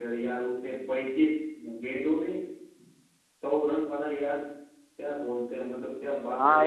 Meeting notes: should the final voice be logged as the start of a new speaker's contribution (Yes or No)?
Yes